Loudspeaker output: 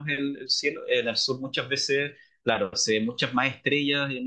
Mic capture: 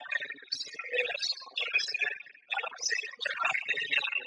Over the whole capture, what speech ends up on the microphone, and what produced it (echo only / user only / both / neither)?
echo only